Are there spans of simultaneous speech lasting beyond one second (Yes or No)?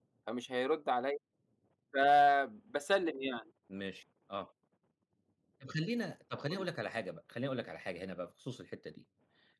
No